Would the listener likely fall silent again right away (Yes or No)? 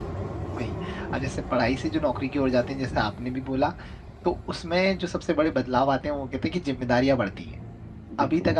Yes